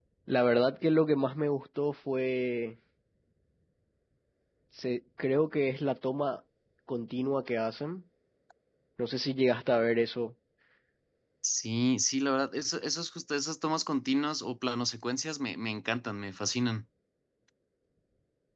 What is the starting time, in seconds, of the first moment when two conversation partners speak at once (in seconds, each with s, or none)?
none